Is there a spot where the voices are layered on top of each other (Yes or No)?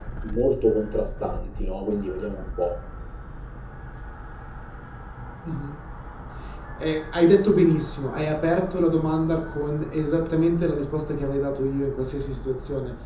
No